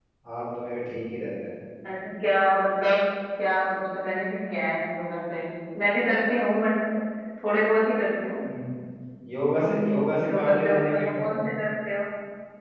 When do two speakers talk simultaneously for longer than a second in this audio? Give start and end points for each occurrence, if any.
9.6-11.3

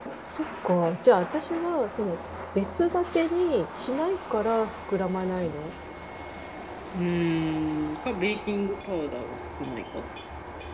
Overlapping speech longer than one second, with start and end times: none

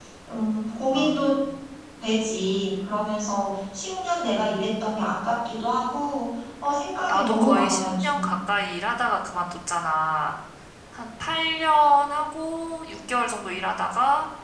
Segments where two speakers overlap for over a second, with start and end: 7.1-8.3

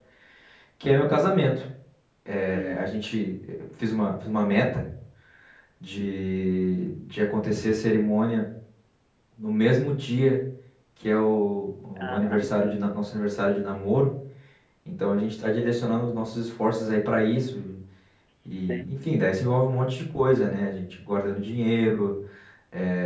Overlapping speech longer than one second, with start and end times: none

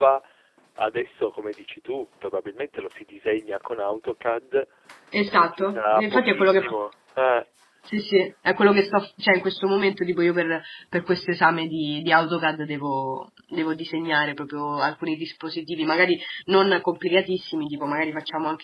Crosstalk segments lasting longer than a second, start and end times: 5.3-6.7

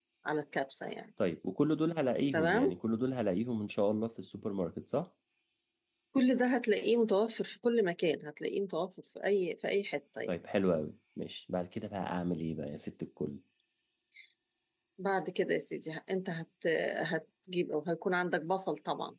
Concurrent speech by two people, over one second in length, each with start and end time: none

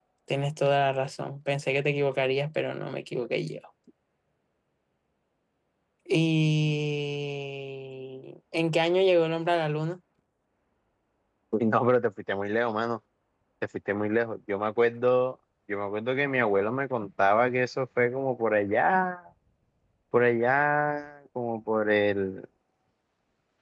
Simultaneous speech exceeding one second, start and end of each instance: none

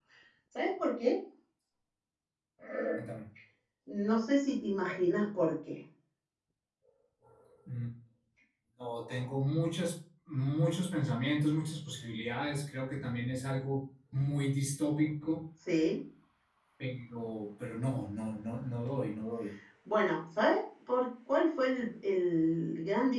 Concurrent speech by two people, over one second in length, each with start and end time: none

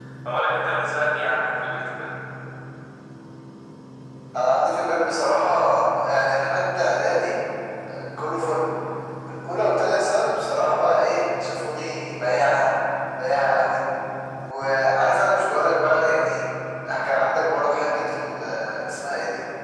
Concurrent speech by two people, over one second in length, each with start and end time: none

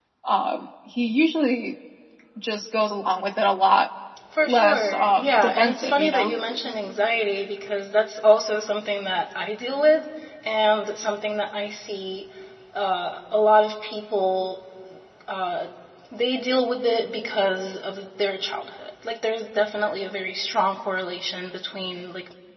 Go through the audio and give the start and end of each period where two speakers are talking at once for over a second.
4.4-6.3

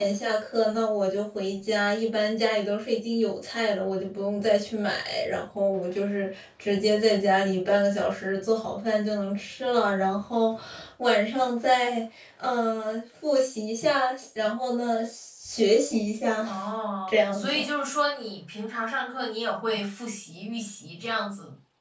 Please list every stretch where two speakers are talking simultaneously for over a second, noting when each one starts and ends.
none

